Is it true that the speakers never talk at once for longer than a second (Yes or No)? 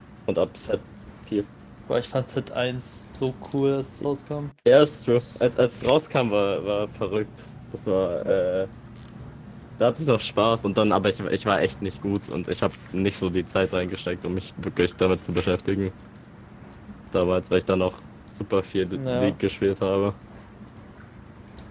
Yes